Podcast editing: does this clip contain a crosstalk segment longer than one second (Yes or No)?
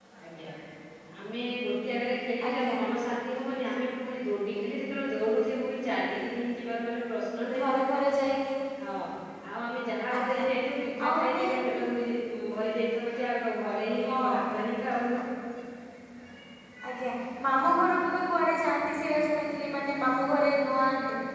No